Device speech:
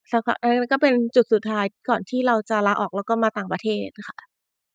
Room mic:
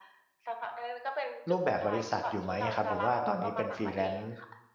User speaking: Yes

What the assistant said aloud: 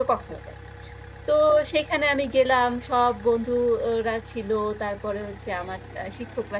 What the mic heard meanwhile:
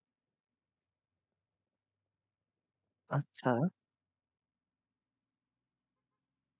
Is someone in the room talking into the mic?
Yes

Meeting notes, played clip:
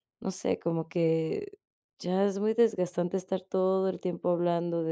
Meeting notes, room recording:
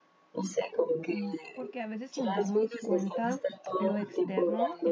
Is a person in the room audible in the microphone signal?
Yes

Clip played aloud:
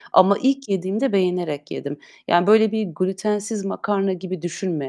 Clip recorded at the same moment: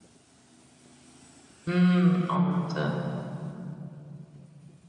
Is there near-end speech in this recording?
Yes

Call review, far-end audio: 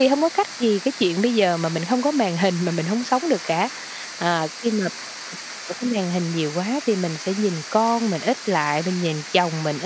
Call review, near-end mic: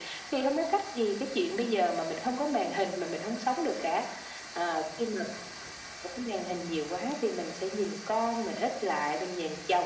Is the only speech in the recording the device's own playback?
Yes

